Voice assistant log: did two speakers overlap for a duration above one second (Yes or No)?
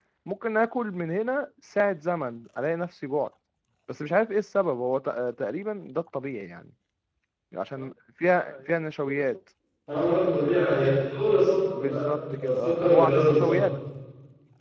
Yes